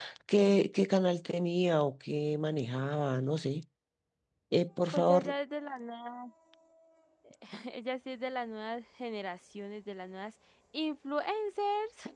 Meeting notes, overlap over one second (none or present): none